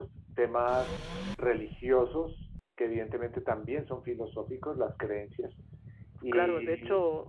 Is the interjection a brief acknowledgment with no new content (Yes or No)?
No